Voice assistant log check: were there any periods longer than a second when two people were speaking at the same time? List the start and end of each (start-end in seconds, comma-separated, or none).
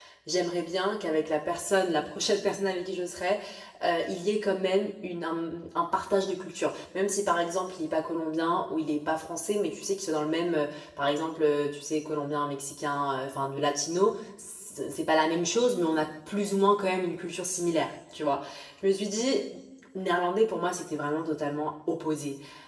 none